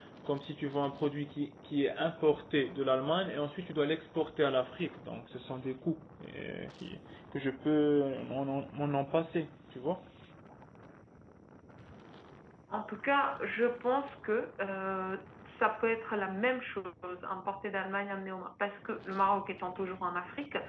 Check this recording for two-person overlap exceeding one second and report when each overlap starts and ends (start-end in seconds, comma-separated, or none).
none